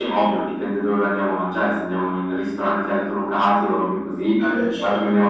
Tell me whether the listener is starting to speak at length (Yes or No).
No